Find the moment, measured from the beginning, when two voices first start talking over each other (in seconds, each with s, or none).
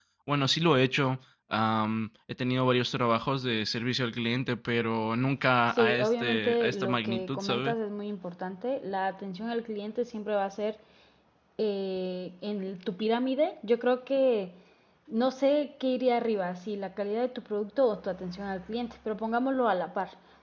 5.7 s